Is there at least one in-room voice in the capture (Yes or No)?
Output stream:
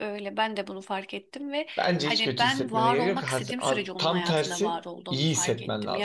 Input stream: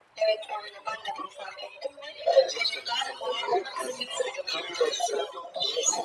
No